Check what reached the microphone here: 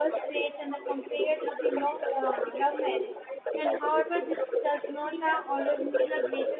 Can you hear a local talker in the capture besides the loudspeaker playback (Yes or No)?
Yes